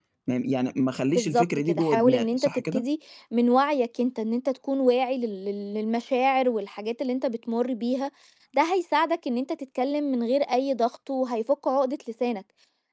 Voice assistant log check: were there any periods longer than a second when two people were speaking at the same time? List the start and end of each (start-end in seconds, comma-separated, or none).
1.1-2.9